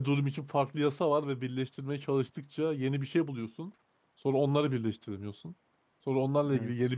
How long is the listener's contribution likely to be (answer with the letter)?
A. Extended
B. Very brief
B